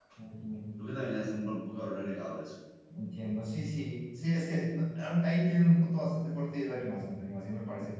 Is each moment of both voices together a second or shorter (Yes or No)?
Yes